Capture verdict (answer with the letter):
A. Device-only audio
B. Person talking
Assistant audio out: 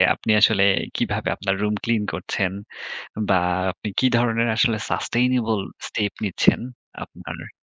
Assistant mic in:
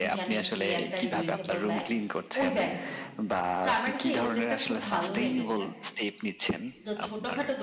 B